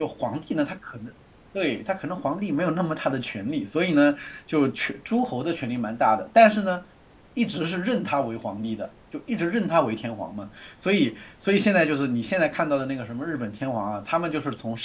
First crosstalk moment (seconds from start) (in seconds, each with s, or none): none